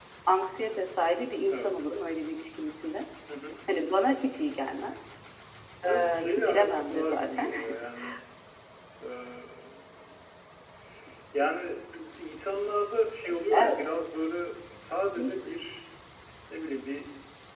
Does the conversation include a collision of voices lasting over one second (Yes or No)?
Yes